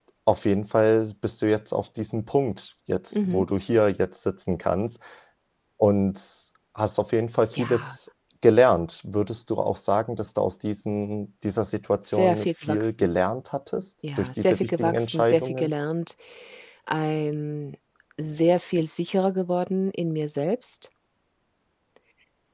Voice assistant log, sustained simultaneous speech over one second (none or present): present